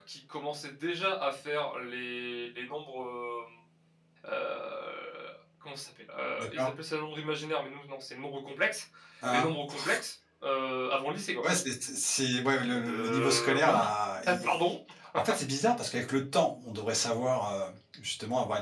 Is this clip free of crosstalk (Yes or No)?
No